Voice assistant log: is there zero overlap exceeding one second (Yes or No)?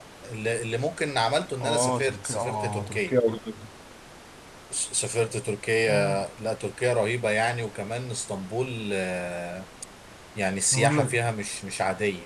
No